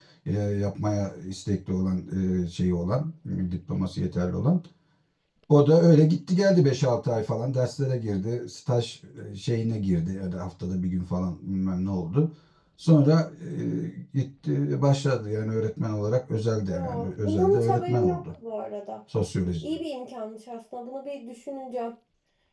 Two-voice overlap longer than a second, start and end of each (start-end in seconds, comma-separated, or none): 16.7-18.2